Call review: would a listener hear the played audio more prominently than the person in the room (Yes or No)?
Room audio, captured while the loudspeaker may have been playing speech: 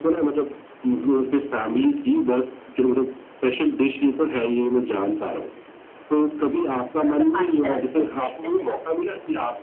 Yes